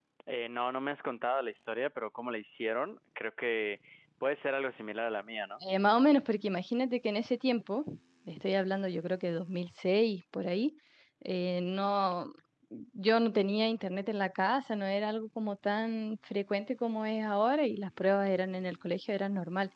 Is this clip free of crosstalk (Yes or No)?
Yes